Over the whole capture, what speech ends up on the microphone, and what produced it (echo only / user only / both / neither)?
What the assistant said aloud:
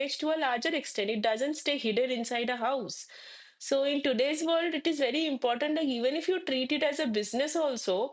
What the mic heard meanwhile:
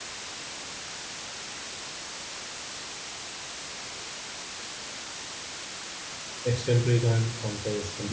user only